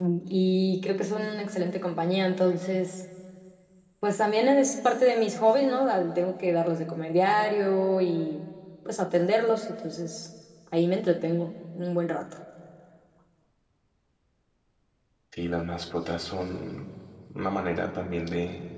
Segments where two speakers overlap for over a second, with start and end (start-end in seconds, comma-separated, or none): none